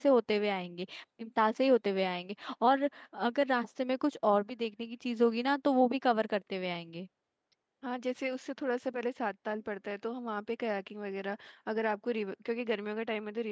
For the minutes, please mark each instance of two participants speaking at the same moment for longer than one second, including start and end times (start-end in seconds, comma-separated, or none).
none